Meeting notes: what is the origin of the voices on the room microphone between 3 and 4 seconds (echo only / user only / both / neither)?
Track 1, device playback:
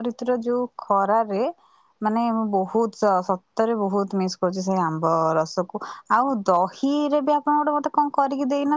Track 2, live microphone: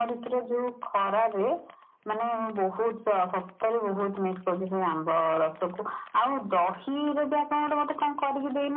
echo only